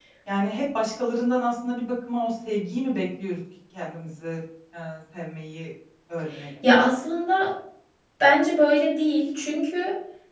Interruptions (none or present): none